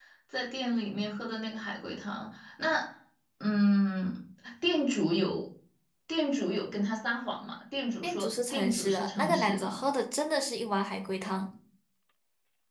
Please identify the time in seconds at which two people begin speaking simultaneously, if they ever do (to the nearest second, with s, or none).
8 s